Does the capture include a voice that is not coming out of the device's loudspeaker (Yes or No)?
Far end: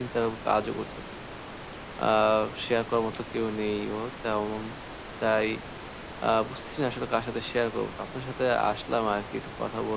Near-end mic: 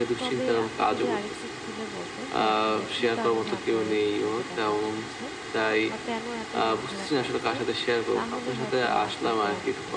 Yes